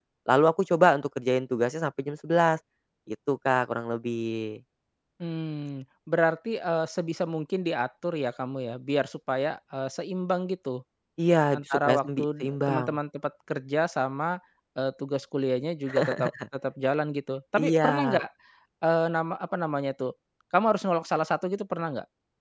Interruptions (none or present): present